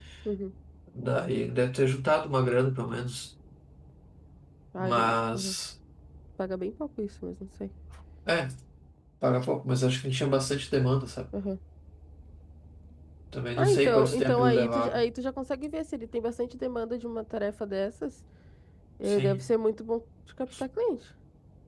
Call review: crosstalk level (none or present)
present